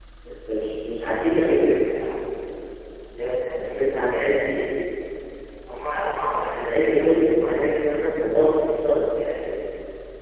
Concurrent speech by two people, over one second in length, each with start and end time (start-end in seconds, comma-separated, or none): 6.4-7.8